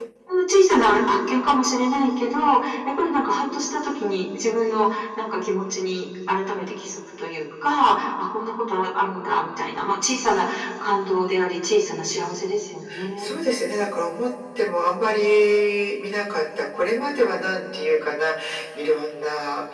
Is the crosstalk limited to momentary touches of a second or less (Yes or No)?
Yes